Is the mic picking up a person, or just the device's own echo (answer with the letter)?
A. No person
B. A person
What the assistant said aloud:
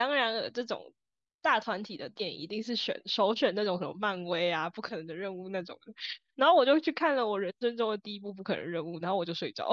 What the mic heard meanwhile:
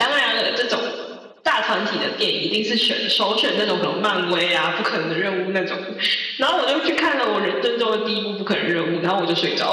A